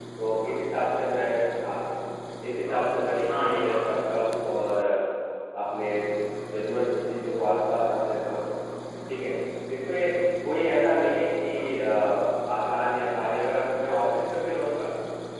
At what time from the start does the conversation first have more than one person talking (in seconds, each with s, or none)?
2.7 s